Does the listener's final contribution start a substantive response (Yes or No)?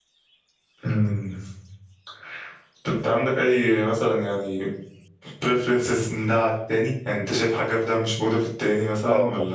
Yes